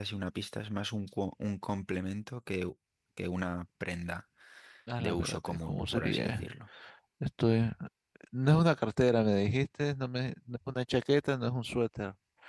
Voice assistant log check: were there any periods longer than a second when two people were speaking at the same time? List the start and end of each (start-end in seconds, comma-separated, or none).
5.0-6.5